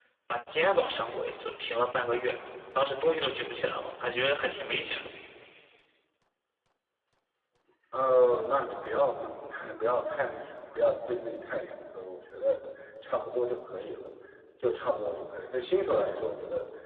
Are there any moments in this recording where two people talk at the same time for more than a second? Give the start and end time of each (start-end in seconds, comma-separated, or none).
none